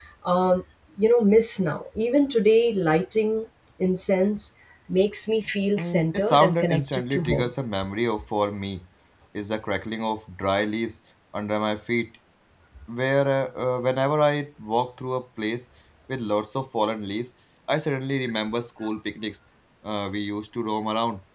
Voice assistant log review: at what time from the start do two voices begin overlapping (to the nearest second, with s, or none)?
6 s